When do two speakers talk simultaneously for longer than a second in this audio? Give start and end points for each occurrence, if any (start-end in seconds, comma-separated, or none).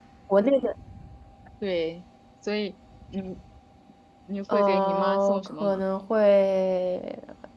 4.5-5.8